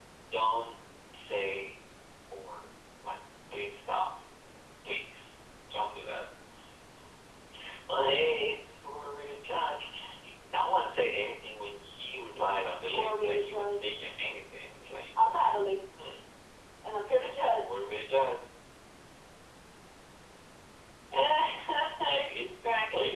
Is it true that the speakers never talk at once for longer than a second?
No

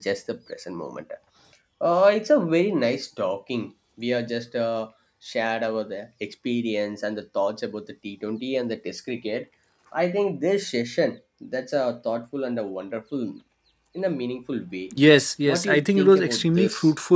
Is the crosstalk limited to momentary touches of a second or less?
No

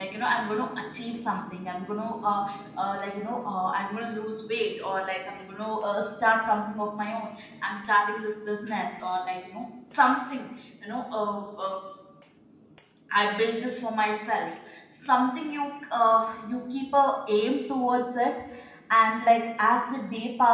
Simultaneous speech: No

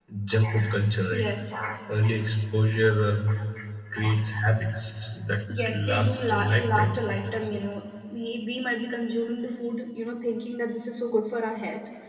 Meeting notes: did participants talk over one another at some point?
Yes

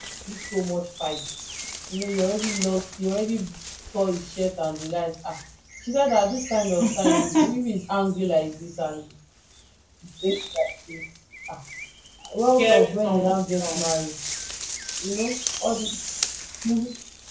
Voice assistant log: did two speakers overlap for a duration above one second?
Yes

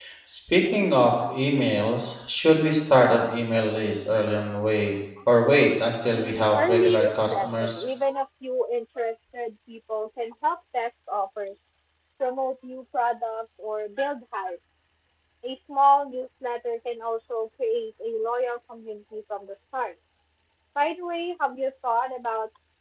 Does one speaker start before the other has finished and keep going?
Yes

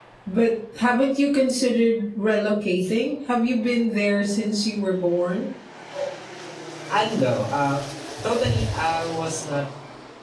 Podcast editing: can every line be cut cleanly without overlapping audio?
Yes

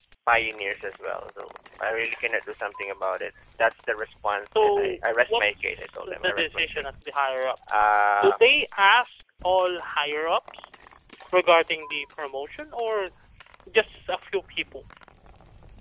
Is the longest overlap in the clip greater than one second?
Yes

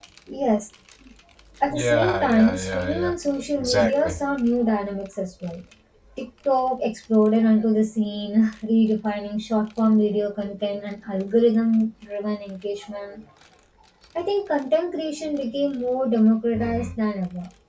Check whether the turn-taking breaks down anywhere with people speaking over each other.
Yes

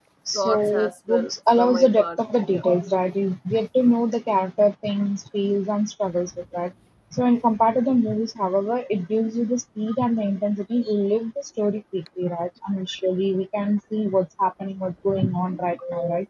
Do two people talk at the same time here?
Yes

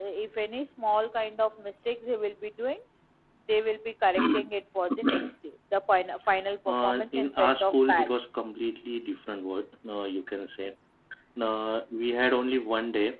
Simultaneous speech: Yes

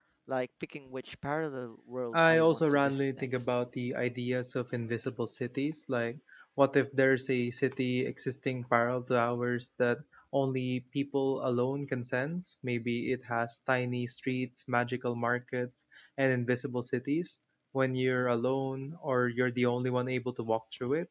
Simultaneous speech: Yes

